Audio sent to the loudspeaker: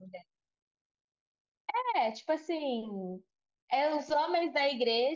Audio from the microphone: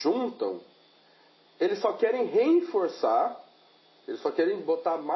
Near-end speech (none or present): present